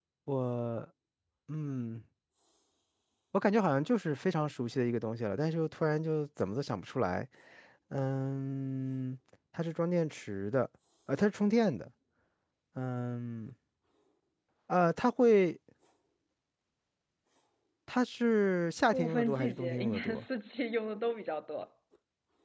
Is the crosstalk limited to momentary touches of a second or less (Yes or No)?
No